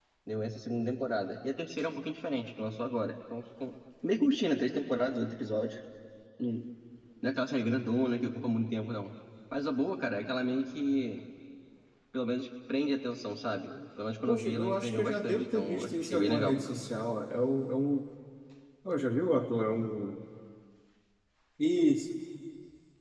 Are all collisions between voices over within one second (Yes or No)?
No